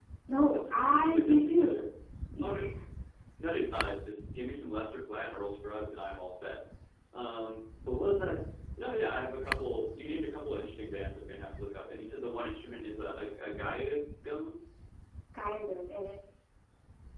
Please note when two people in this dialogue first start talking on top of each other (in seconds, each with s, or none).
0.5 s